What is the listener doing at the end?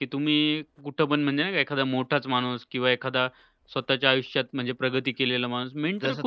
taking over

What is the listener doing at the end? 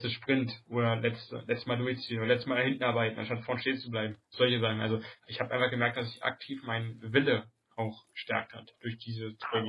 taking over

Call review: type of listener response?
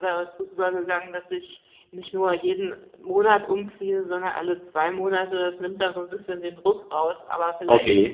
listening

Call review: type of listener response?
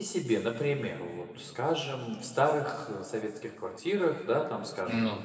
listening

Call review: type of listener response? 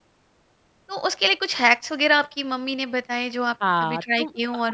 taking over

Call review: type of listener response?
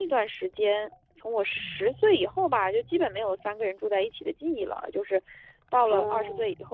listening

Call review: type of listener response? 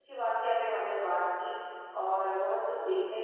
listening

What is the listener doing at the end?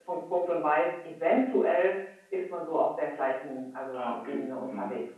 taking over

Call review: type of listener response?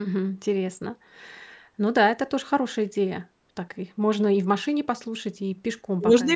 taking over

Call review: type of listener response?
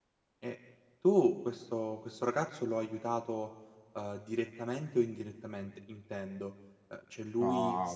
listening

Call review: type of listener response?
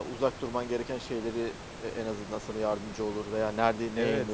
taking over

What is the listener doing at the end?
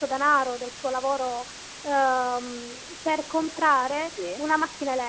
listening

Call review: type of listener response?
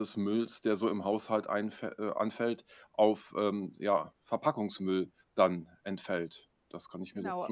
taking over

